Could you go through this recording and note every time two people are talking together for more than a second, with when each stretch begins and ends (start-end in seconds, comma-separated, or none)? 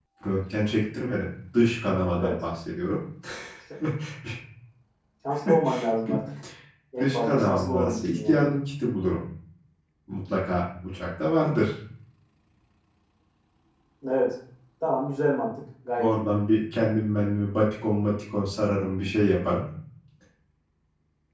7.0-8.4